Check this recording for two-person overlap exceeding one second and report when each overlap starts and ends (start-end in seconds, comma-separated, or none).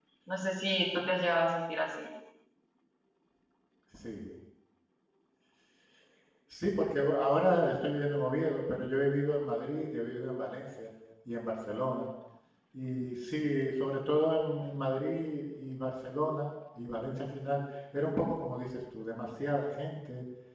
none